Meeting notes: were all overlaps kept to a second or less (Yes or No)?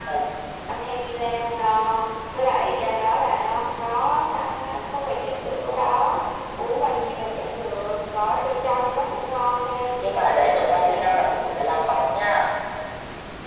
No